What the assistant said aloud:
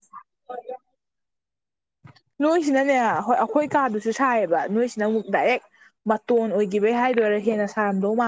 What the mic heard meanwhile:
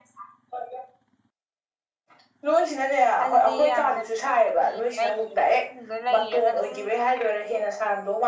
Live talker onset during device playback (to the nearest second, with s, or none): 3 s